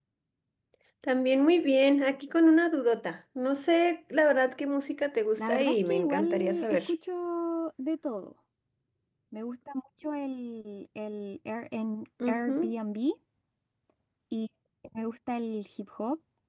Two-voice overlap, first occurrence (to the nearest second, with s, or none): 5 s